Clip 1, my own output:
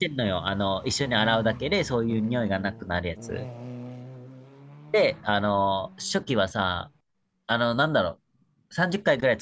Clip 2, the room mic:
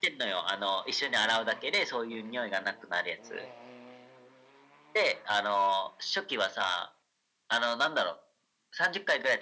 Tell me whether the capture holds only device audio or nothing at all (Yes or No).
Yes